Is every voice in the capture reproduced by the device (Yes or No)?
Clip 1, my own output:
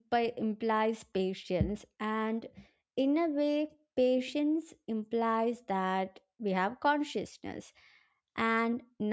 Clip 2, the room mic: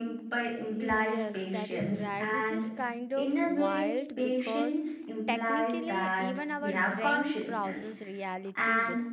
No